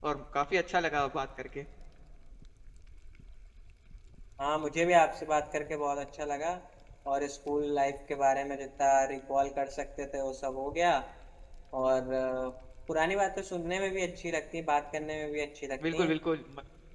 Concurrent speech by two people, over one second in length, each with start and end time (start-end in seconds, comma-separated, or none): none